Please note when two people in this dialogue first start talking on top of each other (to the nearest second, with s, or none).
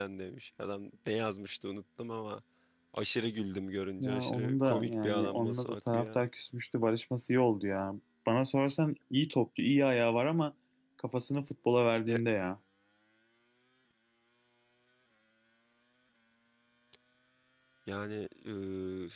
4 s